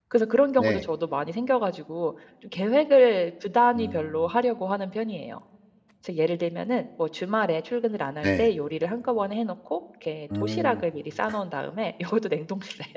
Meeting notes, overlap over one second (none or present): none